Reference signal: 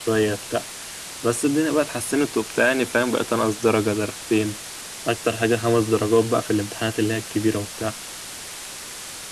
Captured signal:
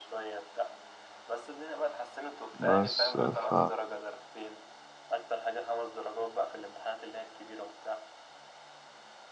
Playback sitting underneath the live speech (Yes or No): Yes